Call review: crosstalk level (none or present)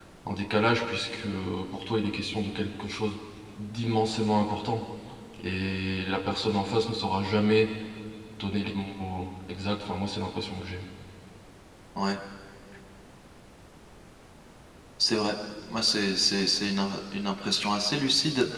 none